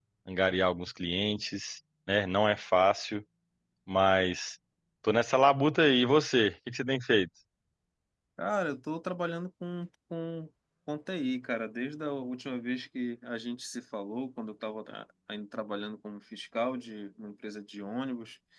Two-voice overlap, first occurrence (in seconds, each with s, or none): none